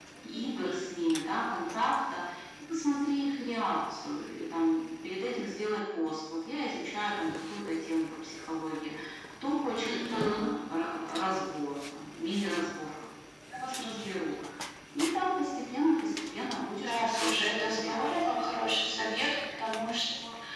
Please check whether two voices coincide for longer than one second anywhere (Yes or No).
Yes